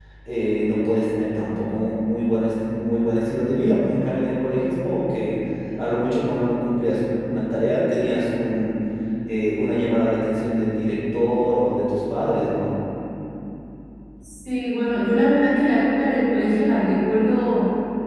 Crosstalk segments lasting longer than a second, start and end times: none

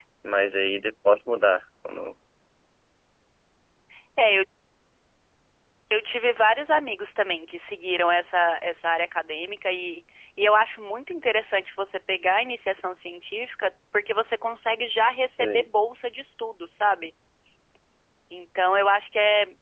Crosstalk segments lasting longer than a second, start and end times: none

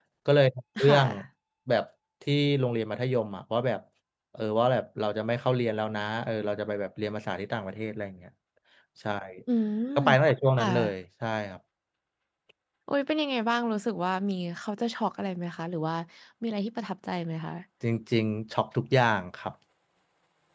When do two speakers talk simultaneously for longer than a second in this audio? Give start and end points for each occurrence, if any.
none

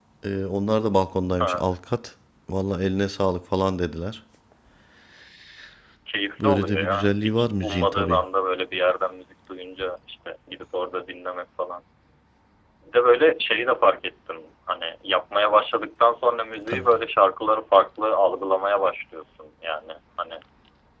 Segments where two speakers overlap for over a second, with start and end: 6.4-8.2

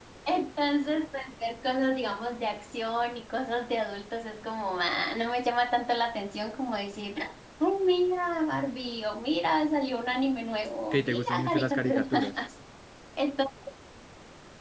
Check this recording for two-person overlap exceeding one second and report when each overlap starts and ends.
10.9-12.3

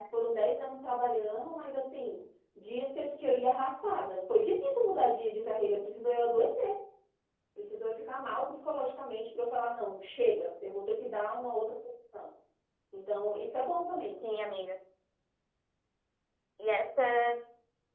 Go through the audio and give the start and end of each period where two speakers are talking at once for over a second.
none

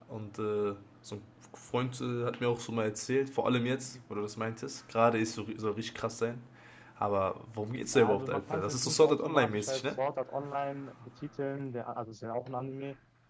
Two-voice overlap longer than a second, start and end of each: 7.9-9.8

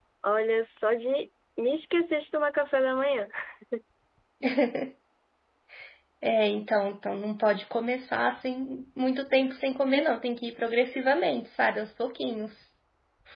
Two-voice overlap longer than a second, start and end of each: none

